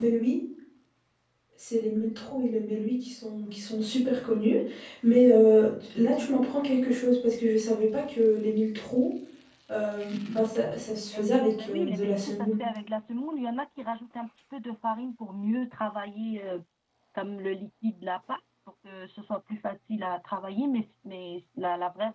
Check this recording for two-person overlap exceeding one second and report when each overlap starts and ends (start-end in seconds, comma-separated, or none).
11.1-12.5